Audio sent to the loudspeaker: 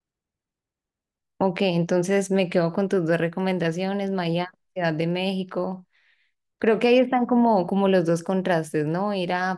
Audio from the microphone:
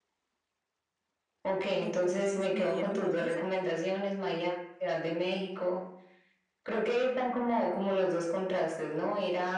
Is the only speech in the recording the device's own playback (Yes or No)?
No